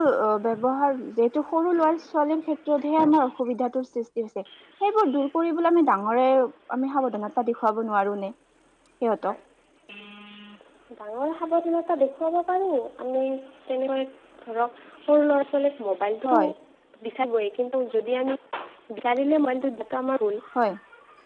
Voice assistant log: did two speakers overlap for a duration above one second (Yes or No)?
No